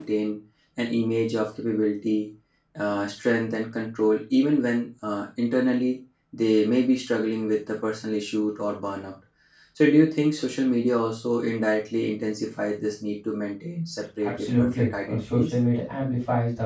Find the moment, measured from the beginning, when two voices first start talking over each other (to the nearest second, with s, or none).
14 s